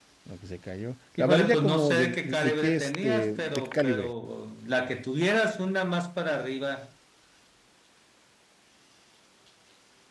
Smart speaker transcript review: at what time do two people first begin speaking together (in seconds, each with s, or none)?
1.2 s